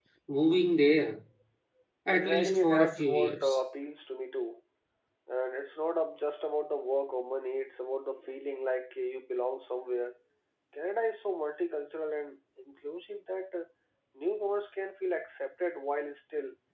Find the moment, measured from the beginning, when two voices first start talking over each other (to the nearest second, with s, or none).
2 s